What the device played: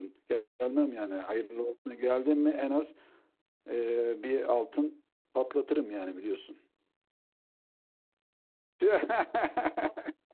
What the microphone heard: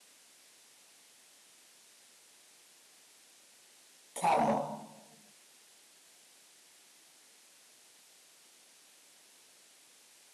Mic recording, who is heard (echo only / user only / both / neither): user only